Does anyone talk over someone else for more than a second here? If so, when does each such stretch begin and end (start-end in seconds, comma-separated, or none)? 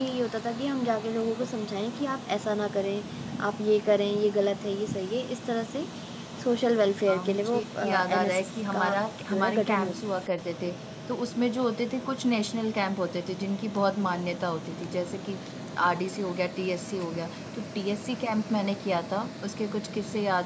7.1-9.9